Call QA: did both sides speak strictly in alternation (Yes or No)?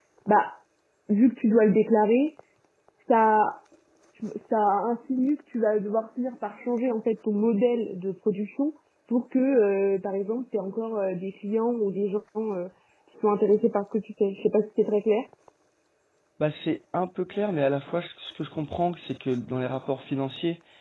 Yes